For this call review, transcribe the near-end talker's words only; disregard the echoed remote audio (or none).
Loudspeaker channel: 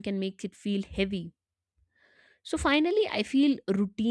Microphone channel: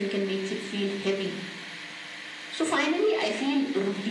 none